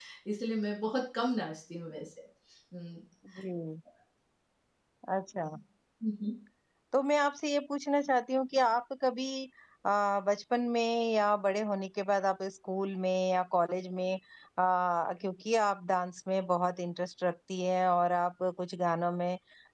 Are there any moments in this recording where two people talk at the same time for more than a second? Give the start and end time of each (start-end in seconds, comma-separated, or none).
none